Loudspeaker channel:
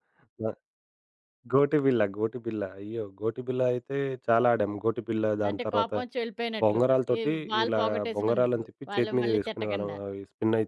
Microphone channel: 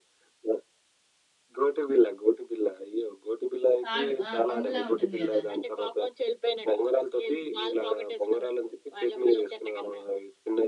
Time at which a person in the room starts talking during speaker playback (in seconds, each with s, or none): 3.9 s